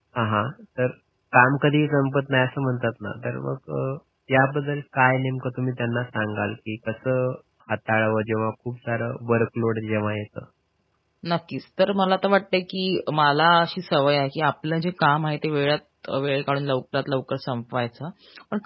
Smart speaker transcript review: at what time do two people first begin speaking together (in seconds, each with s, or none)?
none